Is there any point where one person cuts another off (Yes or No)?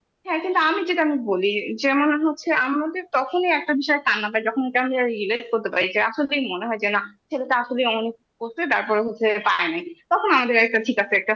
No